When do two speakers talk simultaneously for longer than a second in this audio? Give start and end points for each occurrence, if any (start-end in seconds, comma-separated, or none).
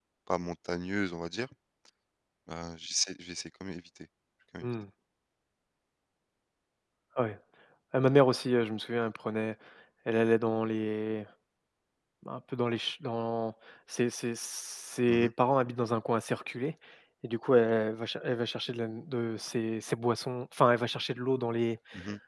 none